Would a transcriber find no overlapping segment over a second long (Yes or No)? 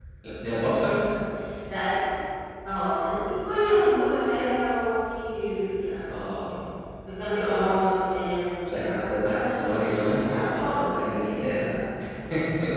No